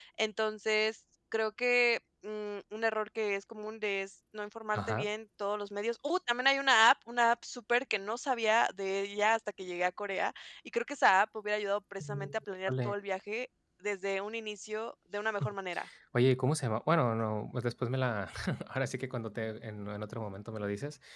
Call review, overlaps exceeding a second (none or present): none